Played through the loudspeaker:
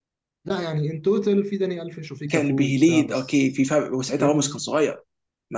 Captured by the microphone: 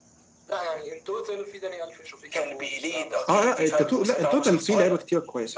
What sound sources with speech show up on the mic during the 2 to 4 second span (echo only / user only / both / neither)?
both